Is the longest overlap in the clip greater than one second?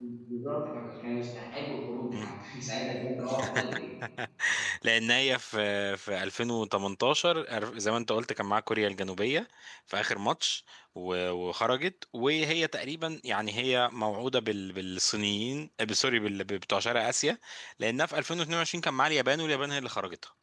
No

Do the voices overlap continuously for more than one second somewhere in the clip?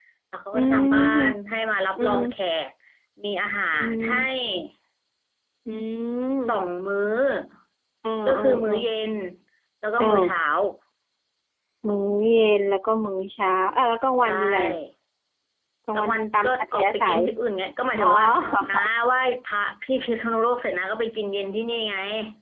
Yes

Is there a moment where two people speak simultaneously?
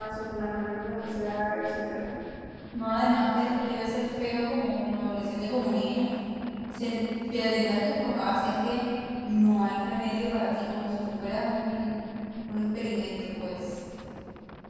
No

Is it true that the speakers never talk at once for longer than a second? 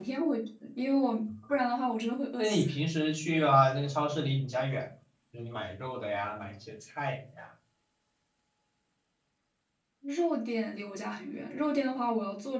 Yes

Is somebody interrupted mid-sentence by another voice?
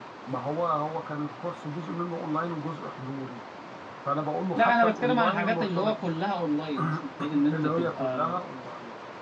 Yes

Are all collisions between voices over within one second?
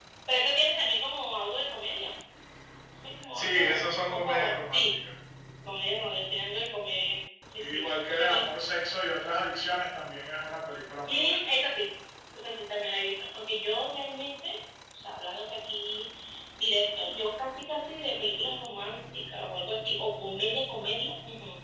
No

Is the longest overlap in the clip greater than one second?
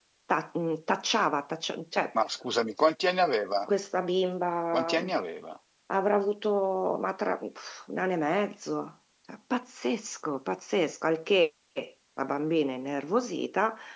No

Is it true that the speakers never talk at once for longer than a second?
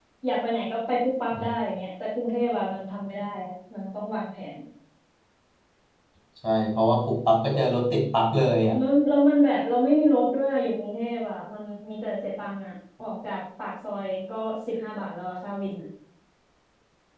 Yes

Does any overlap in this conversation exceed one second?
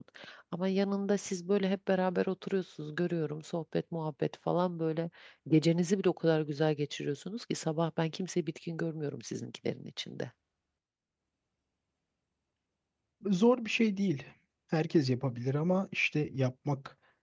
No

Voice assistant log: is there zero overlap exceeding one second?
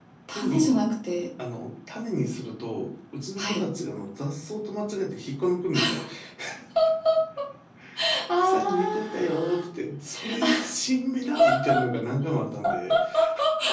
No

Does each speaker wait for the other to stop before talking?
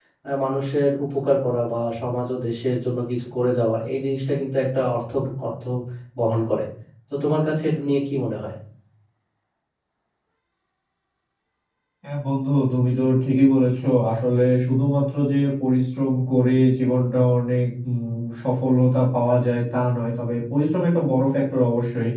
Yes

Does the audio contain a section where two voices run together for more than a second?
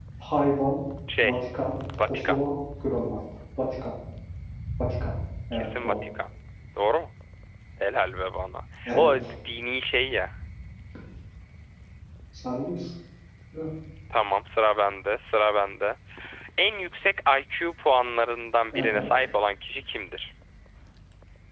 No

